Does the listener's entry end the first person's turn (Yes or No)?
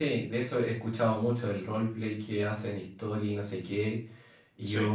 No